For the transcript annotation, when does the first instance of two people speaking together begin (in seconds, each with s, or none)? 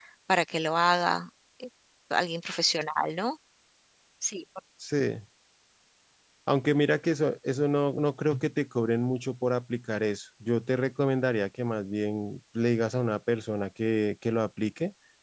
none